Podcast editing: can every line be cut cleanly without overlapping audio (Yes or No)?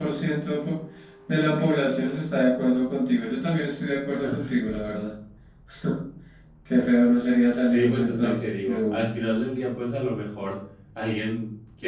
No